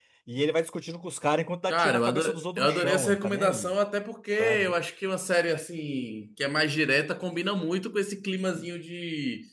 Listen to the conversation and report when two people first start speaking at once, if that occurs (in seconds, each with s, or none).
1.7 s